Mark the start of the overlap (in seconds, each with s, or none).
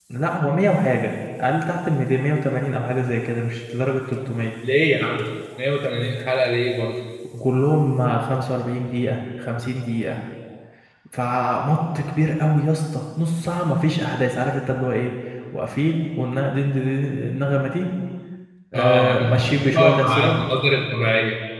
18.7 s